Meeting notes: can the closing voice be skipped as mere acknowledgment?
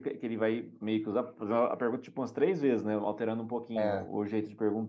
Yes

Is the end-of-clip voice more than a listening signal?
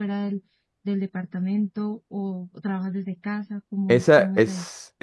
Yes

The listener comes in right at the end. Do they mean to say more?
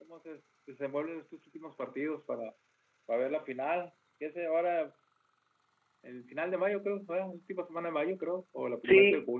Yes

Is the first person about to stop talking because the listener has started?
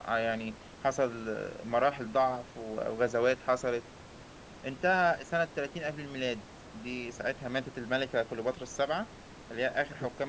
No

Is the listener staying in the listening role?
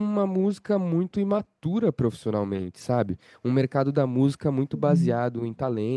Yes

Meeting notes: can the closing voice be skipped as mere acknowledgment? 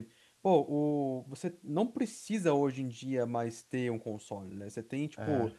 Yes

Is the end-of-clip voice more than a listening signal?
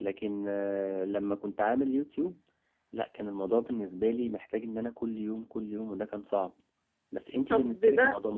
Yes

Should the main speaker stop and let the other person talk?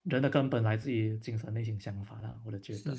Yes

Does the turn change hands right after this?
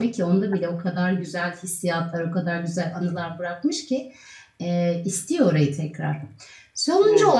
No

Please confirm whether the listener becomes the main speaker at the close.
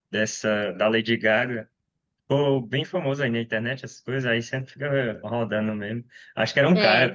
No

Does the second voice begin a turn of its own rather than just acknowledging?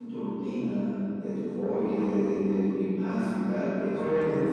Yes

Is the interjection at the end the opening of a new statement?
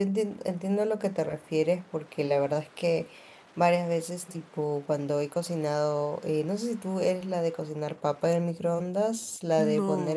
No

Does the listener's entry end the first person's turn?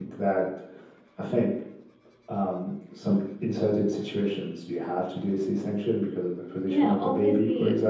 Yes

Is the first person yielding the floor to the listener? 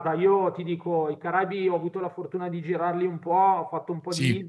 No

